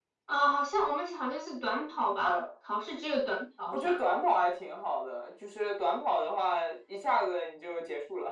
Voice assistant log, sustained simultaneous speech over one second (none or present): none